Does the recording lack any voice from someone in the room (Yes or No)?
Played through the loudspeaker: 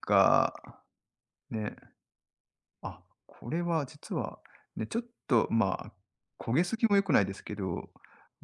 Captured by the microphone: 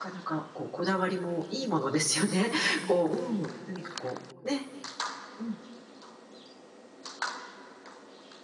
No